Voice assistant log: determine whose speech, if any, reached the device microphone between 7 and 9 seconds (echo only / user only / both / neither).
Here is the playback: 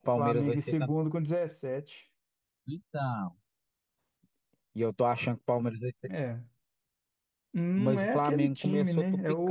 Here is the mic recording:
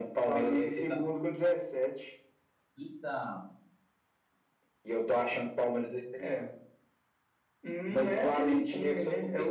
echo only